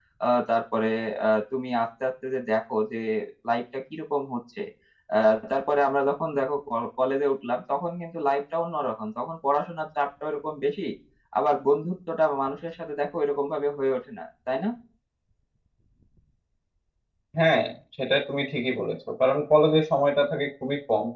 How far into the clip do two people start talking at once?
none

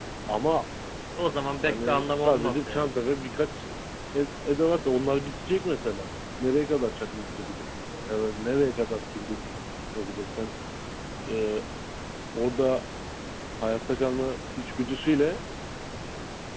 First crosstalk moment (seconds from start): 1.7 s

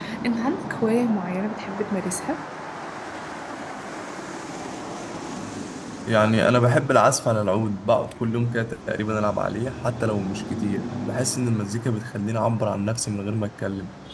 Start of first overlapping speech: none

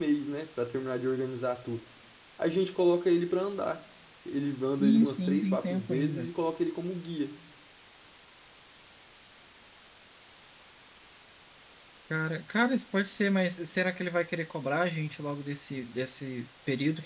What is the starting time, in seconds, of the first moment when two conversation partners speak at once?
4.8 s

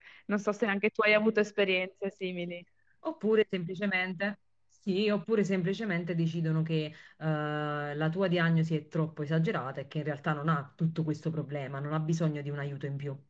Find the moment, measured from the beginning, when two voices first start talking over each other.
none

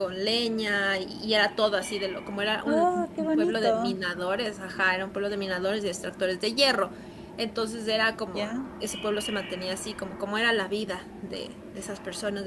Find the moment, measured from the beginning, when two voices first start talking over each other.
2.7 s

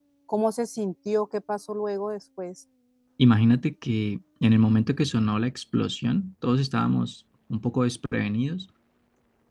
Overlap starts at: none

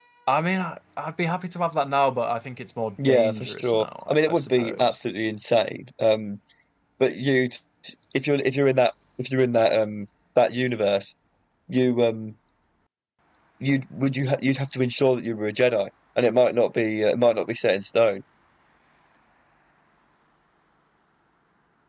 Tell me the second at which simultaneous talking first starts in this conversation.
3.0 s

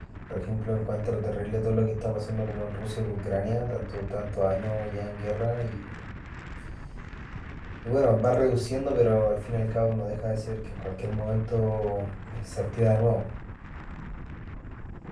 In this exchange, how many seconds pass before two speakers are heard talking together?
none

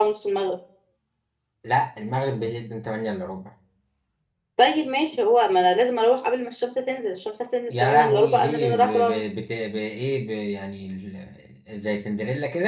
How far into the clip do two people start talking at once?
7.7 s

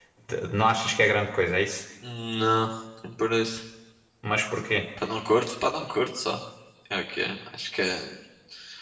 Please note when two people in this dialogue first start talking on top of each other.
none

